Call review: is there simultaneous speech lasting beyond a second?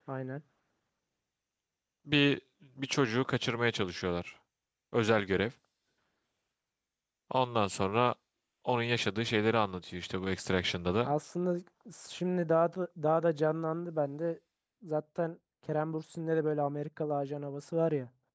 No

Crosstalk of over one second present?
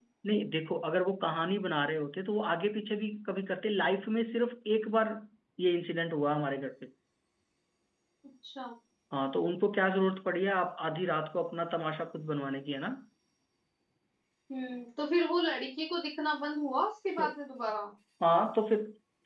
No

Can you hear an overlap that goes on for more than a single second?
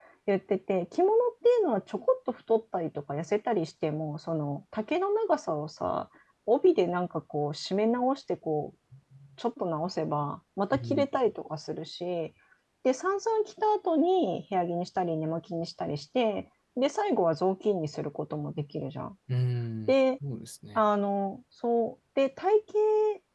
No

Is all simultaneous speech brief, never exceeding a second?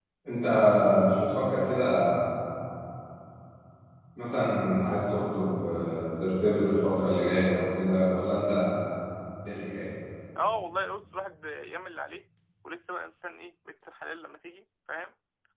Yes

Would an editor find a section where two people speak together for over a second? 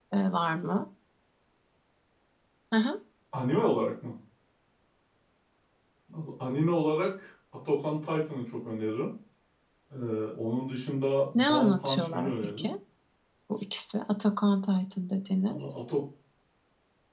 Yes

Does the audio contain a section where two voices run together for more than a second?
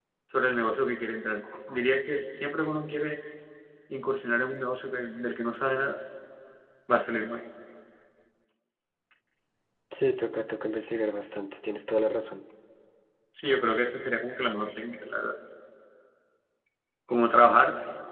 No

